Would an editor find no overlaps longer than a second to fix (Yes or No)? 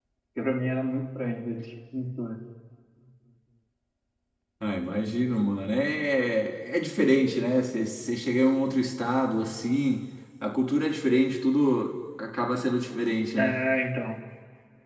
Yes